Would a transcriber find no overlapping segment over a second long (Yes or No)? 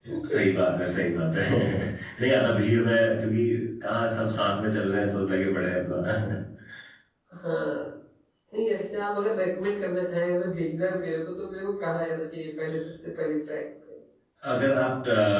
Yes